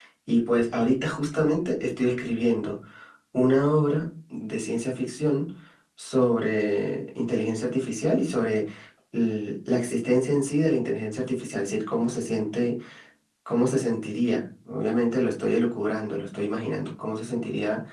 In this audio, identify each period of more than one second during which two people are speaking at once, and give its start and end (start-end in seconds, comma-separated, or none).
none